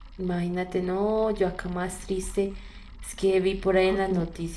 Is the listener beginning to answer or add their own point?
No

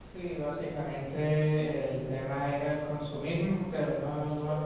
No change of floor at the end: Yes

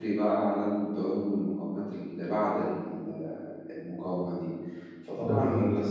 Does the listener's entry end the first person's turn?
No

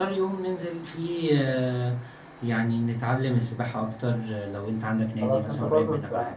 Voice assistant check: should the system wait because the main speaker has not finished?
No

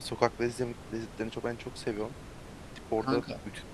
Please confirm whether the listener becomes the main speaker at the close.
No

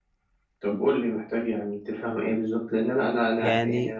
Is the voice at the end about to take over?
No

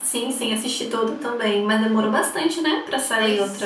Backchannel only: No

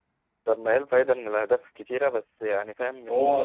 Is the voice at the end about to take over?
Yes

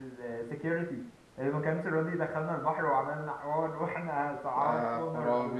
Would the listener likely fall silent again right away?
No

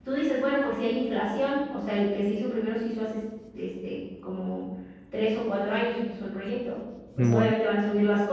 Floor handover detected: No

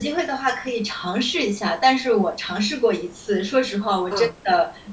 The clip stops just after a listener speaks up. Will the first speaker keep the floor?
Yes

